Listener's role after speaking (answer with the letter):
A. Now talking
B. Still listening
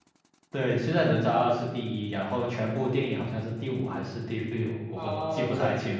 A